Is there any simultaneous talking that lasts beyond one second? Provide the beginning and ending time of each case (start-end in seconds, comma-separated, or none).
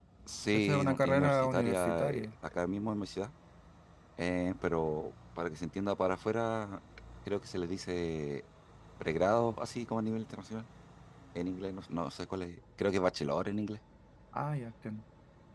0.5-2.3